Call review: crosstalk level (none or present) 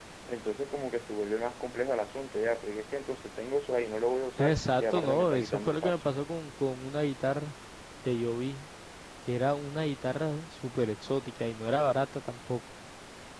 present